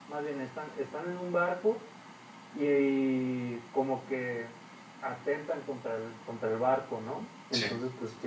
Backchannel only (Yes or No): Yes